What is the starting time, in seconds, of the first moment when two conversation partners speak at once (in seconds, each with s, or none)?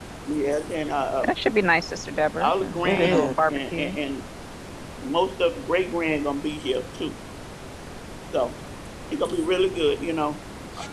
2.4 s